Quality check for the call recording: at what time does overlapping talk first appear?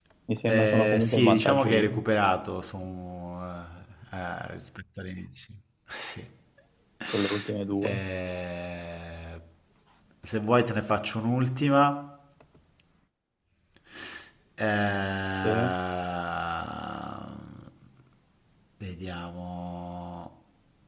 0.5 s

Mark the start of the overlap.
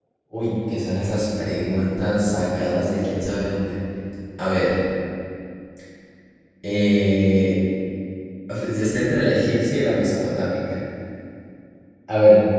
none

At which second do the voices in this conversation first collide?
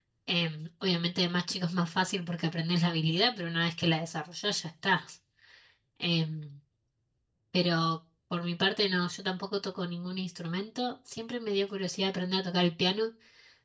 none

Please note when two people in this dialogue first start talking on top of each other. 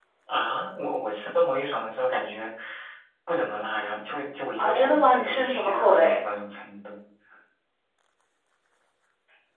4.6 s

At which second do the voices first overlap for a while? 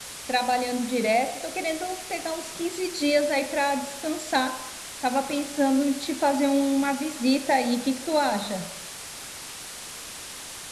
none

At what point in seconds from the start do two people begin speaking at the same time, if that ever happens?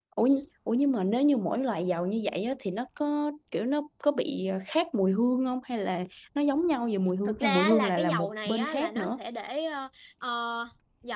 7.2 s

